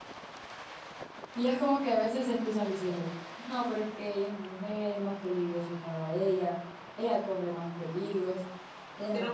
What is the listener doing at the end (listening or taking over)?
taking over